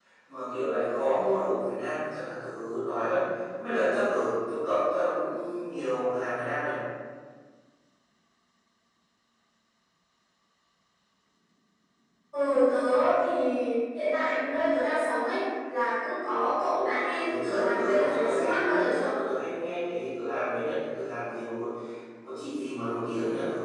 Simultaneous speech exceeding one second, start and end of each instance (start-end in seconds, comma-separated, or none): 17.1-19.1